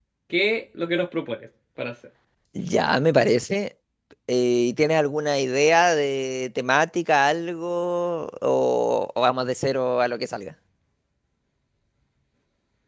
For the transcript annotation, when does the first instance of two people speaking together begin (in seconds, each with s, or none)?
none